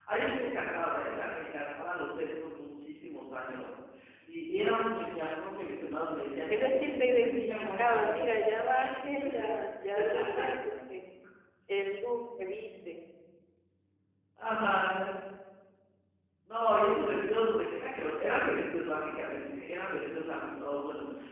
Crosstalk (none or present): present